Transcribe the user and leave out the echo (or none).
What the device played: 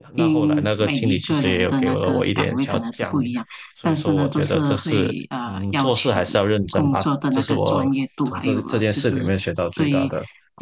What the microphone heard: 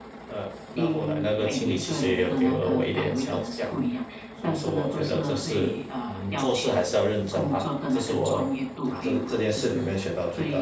none